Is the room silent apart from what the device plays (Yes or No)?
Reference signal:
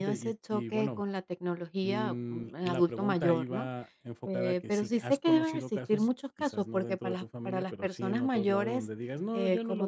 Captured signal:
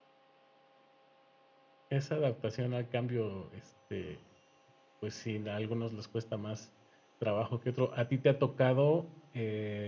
No